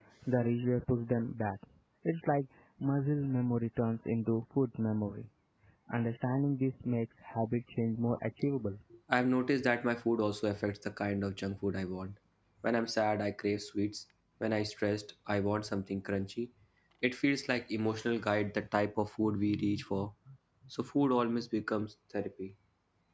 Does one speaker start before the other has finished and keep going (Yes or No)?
No